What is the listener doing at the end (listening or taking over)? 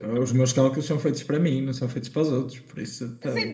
taking over